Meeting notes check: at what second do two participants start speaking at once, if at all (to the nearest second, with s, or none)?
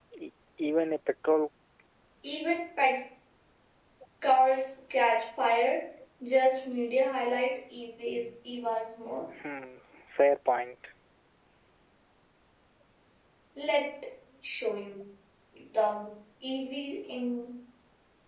none